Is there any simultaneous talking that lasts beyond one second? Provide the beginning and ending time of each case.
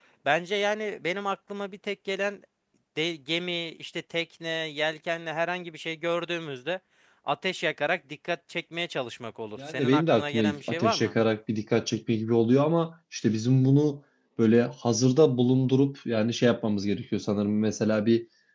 9.7-11.1

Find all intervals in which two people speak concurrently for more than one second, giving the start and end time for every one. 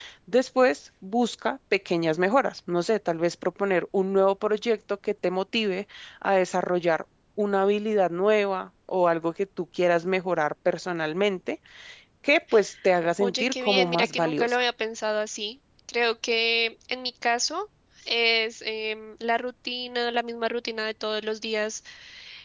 13.2-14.6

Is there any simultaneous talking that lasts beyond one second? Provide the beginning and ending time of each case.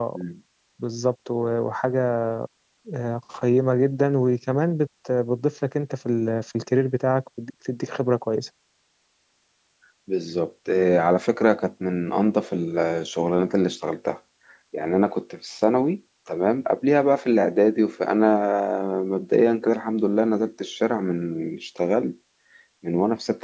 none

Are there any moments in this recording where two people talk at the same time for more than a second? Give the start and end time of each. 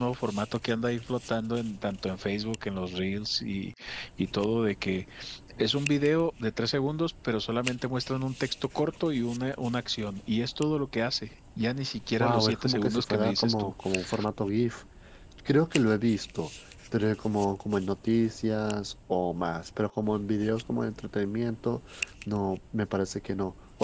12.2-13.7

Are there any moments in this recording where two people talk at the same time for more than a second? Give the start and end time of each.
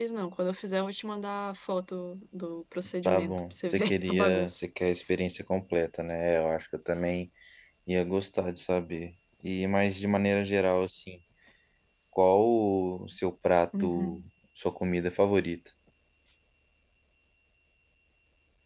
3.0-4.6

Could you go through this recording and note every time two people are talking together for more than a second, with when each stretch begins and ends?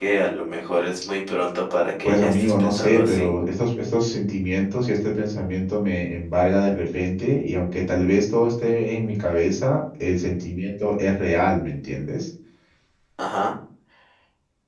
2.0-3.3

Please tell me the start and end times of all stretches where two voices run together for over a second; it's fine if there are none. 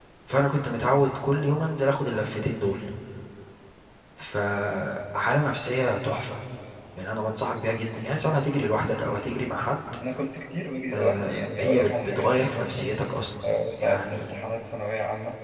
10.9-12.7

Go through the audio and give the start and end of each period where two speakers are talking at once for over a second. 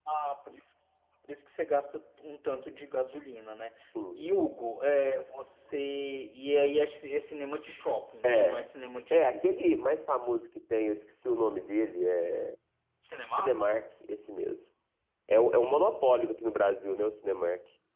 none

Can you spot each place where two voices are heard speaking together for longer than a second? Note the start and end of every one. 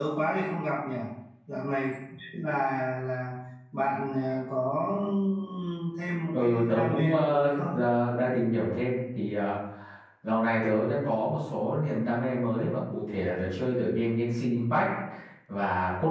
6.3-7.8

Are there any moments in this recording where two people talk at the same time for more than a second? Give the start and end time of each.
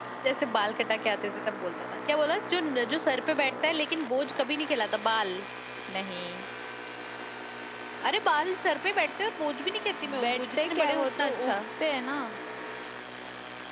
10.2-11.6

